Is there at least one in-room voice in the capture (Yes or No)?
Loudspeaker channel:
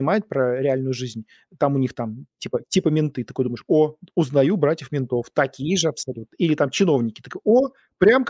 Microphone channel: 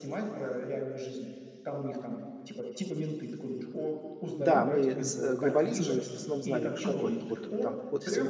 Yes